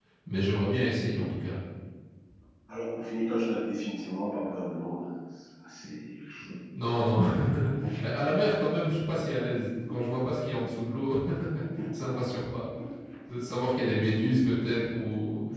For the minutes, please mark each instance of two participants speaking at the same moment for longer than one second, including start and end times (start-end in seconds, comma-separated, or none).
none